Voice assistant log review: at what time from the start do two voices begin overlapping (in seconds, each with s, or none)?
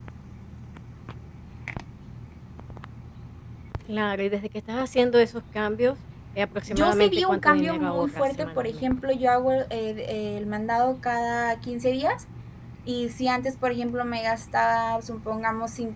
6.7 s